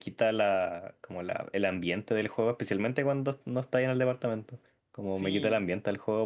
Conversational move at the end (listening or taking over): listening